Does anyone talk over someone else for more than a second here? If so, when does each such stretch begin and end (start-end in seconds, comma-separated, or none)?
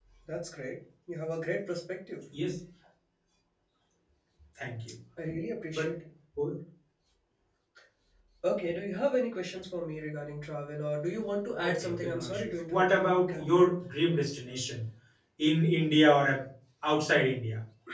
11.6-13.5